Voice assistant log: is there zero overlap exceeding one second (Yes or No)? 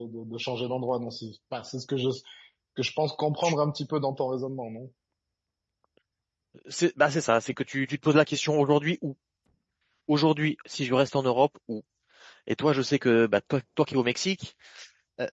Yes